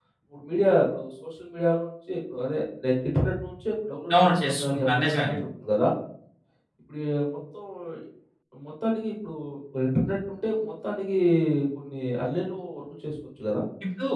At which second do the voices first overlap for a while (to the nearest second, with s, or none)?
4 s